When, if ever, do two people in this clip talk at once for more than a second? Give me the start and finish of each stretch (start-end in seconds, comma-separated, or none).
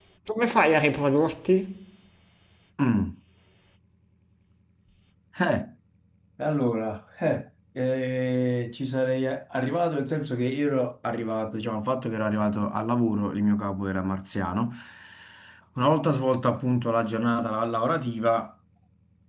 none